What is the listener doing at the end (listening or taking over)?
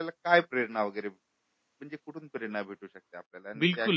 taking over